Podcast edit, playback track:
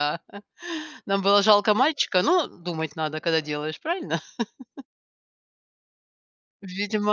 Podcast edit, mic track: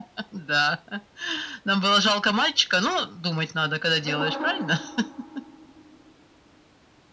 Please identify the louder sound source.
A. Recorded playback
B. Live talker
A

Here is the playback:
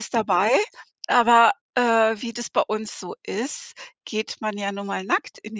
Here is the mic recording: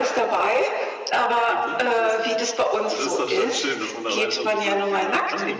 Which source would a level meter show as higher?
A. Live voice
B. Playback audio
B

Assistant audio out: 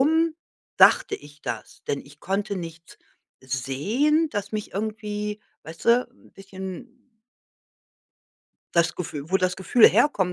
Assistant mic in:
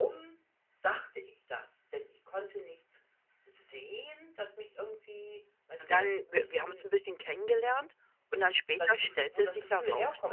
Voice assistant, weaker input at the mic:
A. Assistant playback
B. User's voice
A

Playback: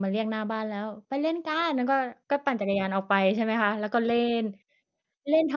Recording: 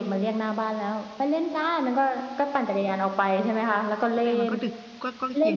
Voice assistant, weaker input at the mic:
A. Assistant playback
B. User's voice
B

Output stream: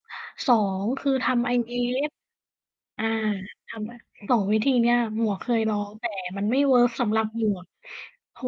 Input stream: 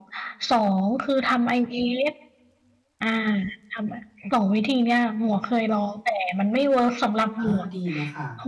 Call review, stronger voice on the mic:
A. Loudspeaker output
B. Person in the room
A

